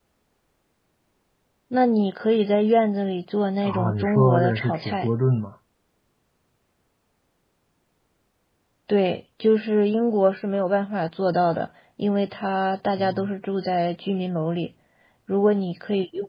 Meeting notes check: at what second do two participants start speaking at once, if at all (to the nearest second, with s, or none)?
4 s